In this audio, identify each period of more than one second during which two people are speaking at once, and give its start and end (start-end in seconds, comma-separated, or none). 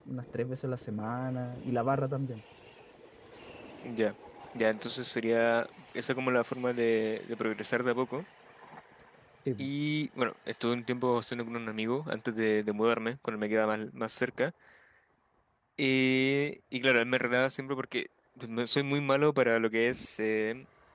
none